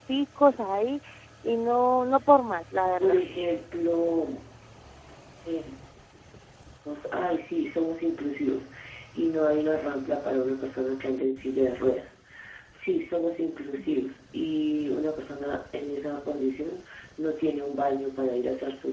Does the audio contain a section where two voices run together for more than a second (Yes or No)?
No